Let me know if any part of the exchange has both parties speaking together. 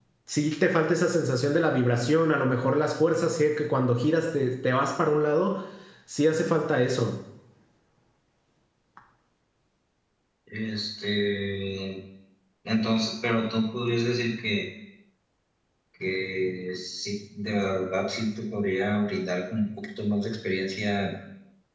No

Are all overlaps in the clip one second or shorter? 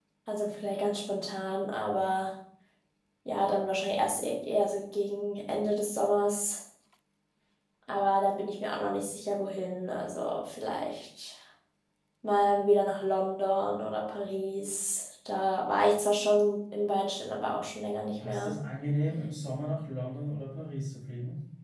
Yes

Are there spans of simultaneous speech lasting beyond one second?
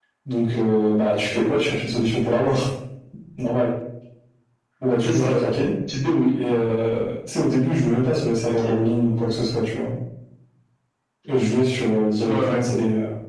No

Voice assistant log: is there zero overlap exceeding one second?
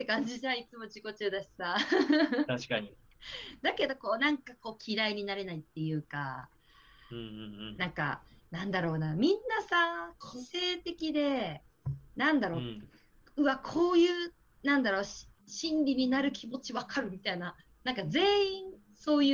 Yes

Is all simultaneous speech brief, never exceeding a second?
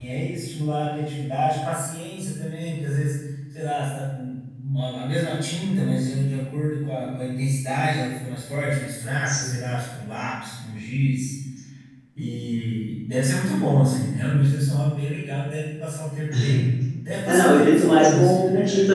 No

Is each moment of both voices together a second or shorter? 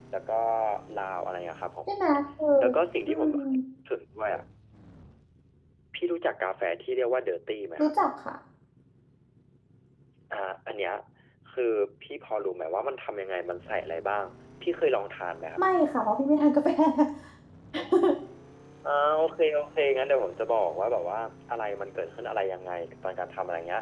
Yes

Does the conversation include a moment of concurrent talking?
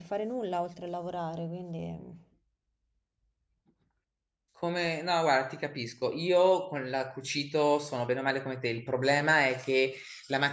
No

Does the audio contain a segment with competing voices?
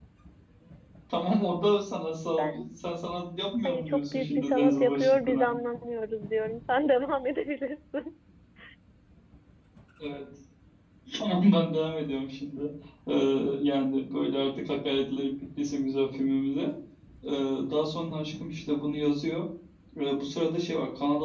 Yes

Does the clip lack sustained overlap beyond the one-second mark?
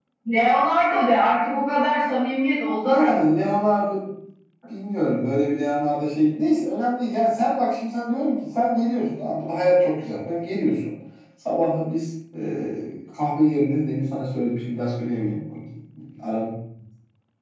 Yes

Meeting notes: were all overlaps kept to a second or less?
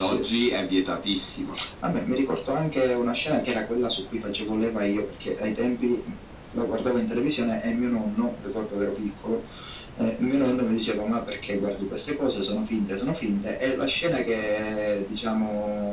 Yes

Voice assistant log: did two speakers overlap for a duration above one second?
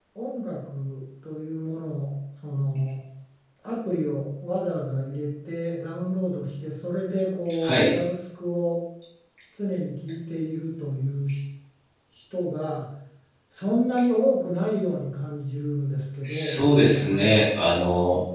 Yes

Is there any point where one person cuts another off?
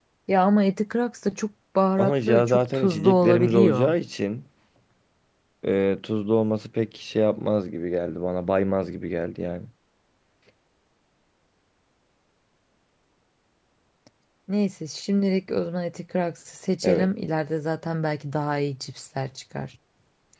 Yes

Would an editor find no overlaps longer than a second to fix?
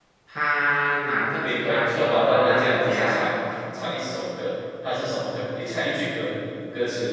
No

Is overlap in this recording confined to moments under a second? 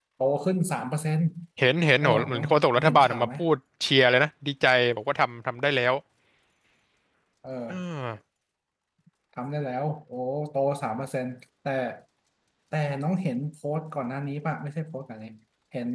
No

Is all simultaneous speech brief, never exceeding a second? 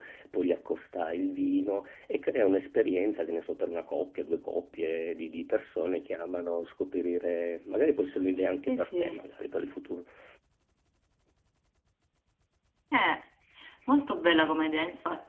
Yes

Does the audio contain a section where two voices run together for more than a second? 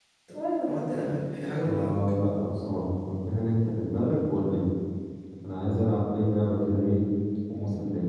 No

